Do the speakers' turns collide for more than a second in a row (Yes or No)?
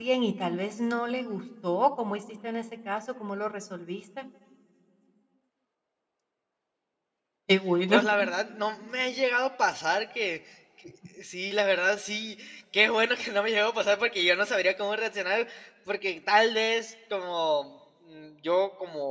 No